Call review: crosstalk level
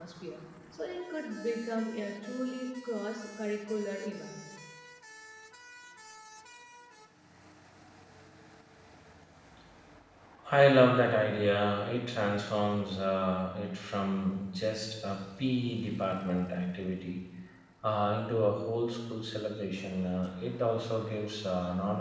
none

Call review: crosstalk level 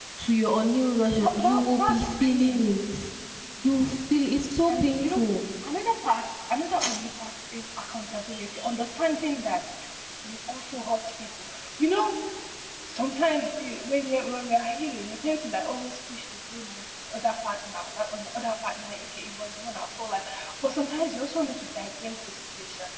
present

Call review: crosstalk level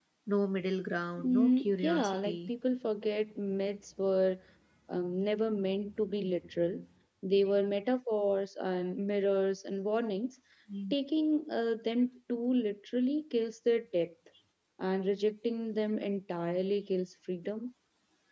present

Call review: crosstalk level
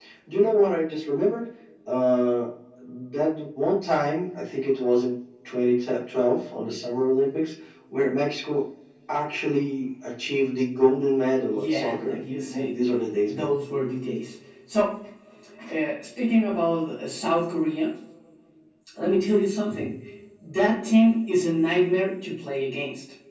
present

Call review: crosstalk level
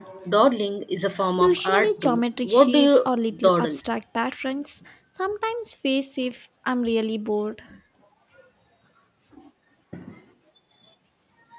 present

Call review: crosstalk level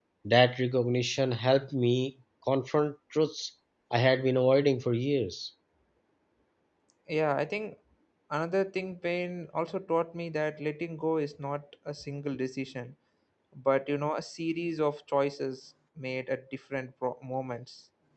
none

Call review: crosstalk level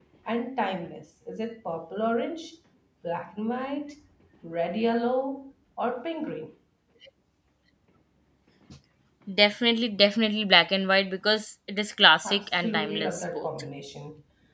present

